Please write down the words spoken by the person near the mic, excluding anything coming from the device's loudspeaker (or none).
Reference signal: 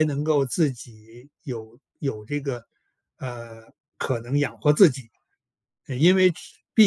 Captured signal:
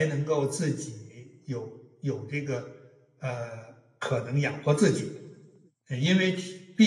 none